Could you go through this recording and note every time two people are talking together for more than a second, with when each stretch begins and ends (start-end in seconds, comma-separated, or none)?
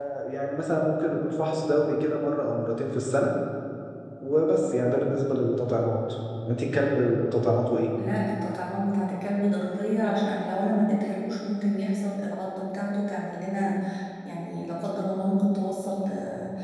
none